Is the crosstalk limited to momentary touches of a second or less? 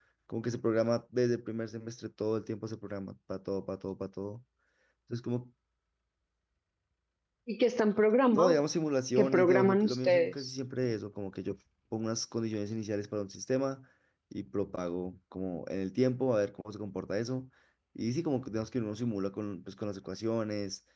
No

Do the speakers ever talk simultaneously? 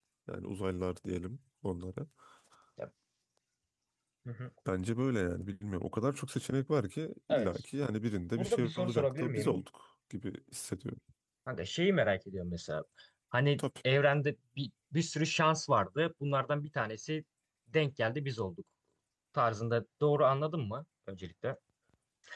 Yes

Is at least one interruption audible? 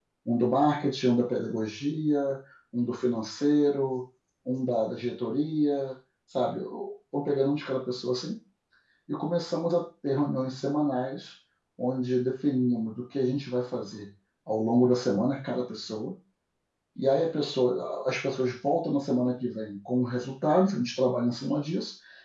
No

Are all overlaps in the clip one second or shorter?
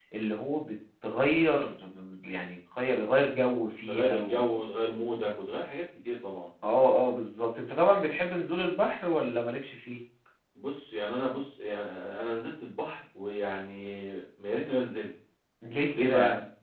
Yes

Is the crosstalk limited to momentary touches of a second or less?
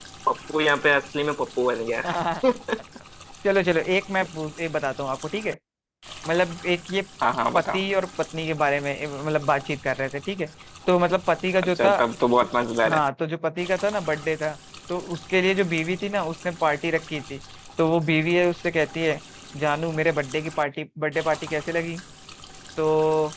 Yes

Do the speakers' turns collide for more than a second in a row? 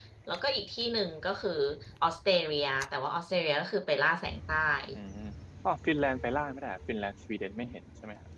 No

